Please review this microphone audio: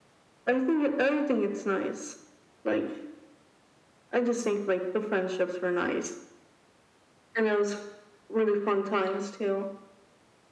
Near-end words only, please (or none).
none